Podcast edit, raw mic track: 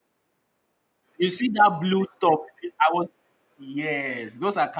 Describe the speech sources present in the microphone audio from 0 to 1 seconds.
neither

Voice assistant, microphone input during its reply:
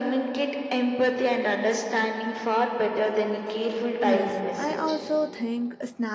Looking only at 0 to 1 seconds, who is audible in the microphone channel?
echo only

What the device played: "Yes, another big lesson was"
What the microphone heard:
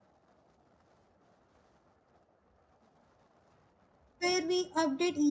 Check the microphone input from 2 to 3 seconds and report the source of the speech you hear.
neither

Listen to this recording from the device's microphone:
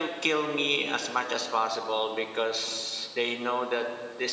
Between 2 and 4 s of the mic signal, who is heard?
echo only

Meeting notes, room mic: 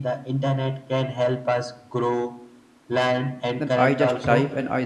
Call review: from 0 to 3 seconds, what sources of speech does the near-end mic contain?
echo only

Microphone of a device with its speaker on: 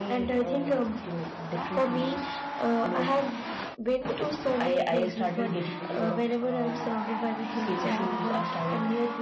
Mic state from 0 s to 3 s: echo only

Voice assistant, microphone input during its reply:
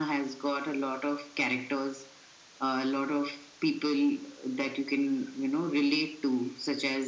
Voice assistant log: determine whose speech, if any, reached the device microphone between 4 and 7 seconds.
echo only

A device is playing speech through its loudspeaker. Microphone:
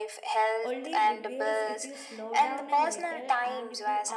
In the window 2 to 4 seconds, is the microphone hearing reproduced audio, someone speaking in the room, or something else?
both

